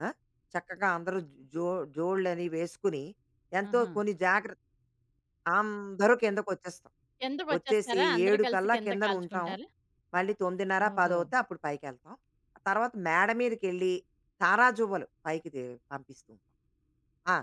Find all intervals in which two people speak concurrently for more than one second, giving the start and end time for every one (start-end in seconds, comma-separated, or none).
7.6-9.5